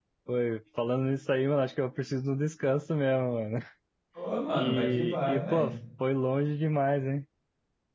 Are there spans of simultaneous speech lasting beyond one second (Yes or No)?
Yes